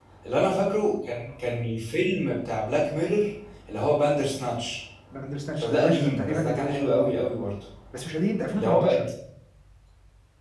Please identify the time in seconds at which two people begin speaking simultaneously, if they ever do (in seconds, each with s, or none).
5.6 s